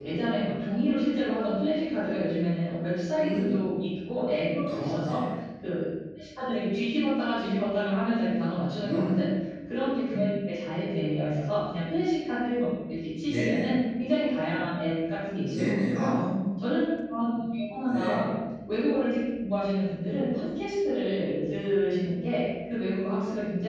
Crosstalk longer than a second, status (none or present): none